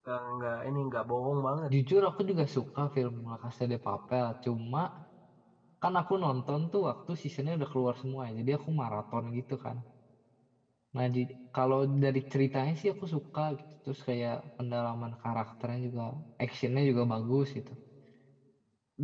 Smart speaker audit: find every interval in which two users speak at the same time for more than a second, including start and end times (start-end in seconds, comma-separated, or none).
none